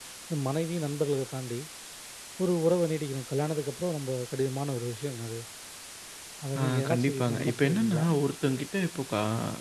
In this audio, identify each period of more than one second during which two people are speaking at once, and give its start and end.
6.6-8.1

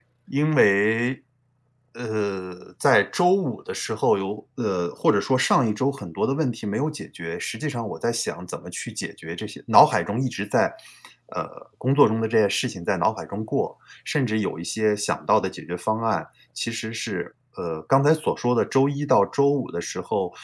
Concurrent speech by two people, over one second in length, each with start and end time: none

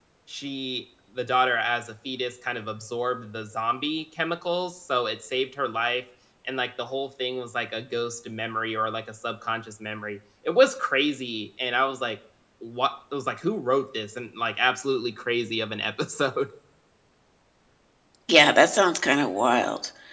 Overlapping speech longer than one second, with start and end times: none

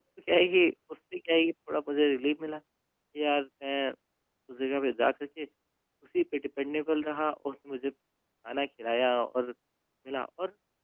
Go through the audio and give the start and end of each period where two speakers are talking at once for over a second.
none

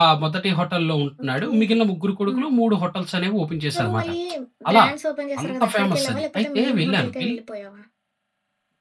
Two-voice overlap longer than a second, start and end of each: 5.4-7.4

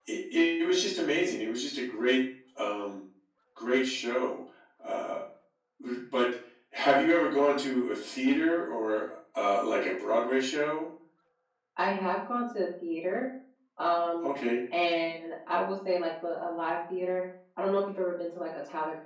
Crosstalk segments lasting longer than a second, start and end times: none

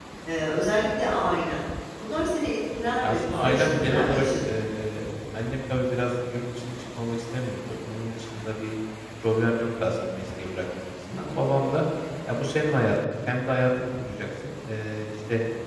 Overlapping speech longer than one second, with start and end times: 3.0-4.3

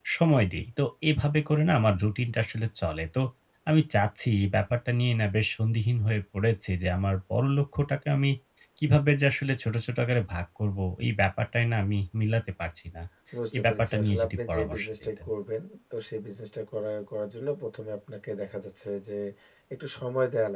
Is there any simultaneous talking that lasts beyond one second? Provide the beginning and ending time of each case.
13.6-15.1

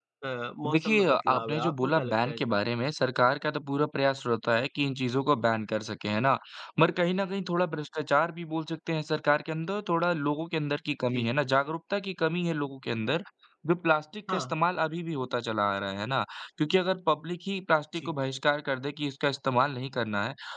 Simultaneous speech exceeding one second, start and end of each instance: 0.7-2.5

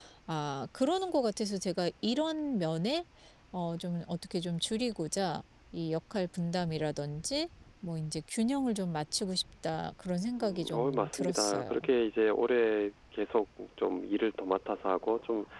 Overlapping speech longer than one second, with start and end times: 10.4-11.7

